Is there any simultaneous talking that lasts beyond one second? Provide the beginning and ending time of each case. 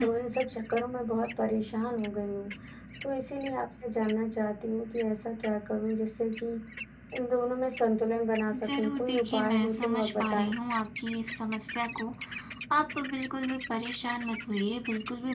8.6-10.5

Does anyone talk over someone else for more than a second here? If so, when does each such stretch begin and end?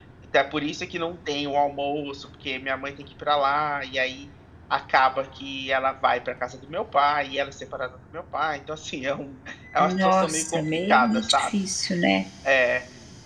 9.8-11.5

